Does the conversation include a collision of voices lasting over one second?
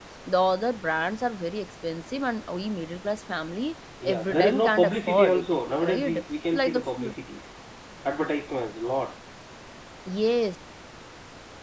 Yes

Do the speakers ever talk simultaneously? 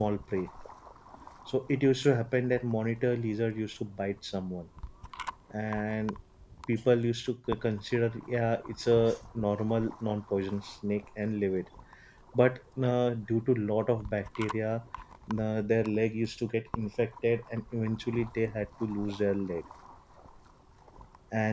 No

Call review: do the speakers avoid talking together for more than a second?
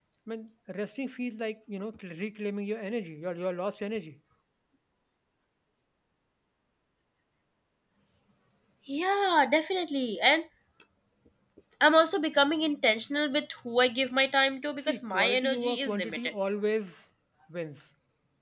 No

